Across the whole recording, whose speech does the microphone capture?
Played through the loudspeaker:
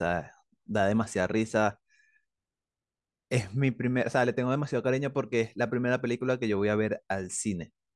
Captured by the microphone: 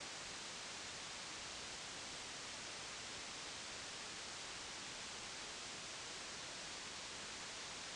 neither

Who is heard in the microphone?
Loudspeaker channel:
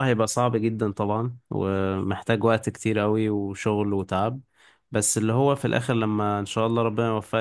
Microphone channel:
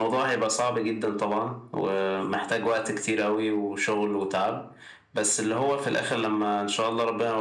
echo only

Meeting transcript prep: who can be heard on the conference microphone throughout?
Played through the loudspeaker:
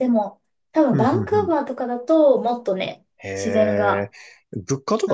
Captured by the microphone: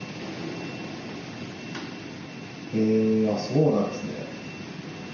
user only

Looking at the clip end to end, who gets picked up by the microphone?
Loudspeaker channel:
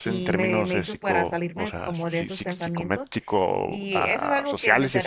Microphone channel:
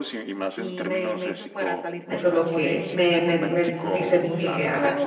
both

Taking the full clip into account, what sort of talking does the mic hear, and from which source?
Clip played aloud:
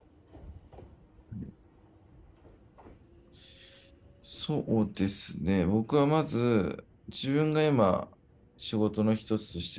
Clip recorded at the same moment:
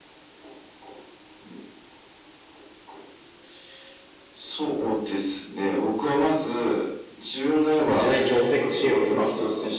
both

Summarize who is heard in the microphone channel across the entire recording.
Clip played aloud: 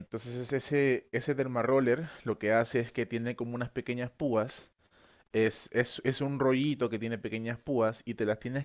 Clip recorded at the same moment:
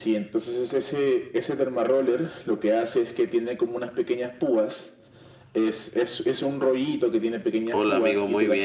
both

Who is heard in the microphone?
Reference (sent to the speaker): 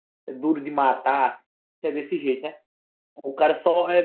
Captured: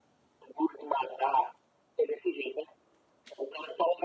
echo only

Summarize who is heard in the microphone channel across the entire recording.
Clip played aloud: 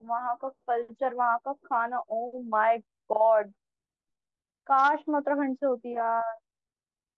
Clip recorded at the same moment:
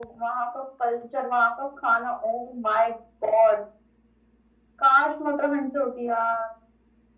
echo only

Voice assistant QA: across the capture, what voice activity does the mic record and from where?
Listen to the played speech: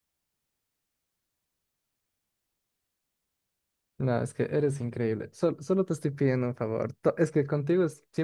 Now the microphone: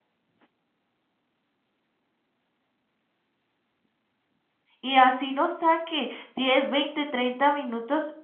user only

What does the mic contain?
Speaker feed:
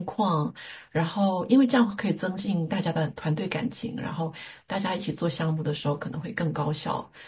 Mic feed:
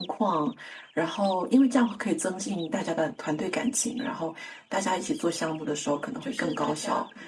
both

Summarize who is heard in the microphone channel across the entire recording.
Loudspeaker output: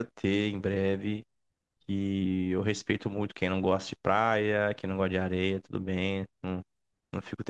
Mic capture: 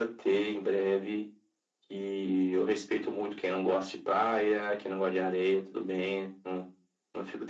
echo only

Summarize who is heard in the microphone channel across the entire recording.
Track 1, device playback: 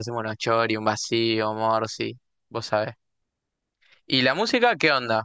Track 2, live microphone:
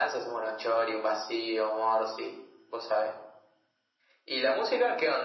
echo only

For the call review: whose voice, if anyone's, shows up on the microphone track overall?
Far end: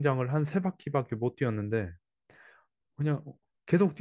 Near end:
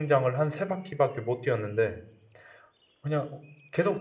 echo only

